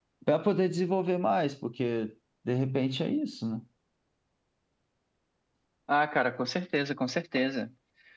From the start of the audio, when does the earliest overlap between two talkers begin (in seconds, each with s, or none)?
none